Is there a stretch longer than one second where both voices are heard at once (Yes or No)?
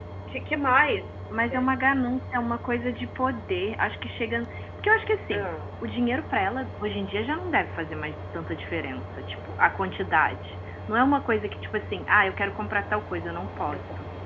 No